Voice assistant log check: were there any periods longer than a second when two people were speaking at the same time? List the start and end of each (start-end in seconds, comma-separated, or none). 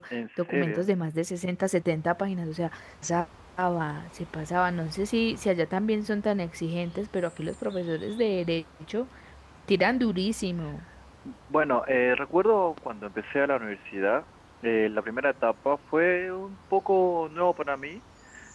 none